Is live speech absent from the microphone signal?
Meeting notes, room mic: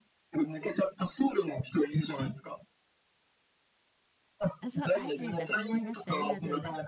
No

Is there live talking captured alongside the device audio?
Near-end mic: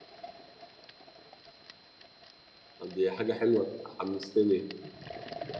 Yes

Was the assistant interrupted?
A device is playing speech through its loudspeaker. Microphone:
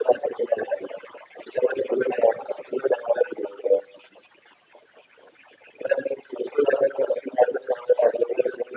No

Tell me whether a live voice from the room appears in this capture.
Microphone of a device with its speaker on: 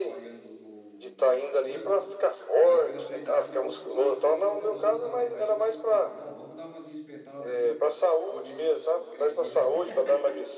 Yes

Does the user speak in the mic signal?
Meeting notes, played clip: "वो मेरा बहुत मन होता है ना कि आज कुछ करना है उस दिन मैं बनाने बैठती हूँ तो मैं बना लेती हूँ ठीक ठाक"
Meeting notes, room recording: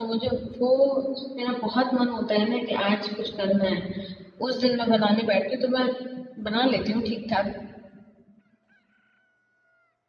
No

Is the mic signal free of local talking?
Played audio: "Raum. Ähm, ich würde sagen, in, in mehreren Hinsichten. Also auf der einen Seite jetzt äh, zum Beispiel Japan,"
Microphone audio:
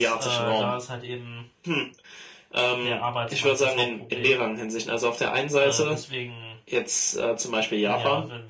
No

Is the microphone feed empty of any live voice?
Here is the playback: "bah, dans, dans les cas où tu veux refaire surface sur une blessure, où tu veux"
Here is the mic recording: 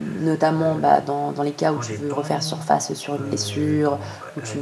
No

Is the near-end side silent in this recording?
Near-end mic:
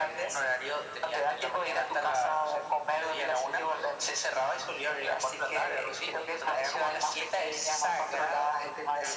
Yes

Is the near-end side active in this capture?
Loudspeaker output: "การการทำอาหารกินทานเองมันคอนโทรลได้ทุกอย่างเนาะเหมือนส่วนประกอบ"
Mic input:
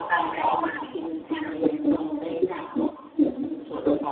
No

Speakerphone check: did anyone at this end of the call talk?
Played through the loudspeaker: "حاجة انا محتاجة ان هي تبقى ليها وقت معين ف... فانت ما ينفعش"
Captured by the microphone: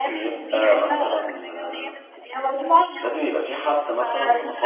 Yes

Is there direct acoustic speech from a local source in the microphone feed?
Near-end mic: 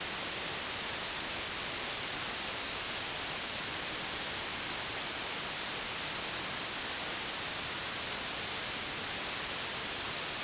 No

